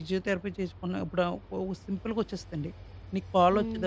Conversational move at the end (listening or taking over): listening